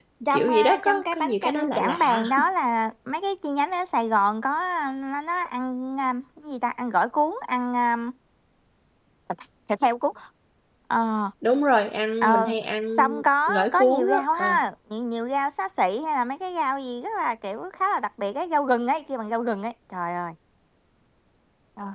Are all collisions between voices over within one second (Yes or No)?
No